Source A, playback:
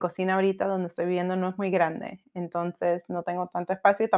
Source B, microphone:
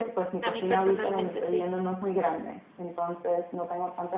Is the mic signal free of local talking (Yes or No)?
No